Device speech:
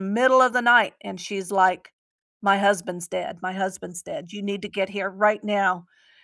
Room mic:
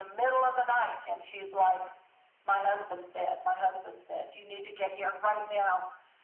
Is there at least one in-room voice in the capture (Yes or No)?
No